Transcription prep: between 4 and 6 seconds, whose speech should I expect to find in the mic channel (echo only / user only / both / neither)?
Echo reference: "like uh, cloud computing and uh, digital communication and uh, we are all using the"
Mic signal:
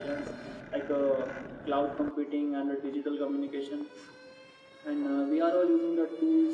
echo only